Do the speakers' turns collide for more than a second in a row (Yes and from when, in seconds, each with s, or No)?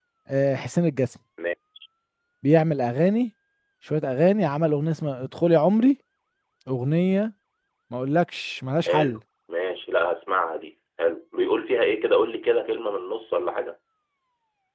No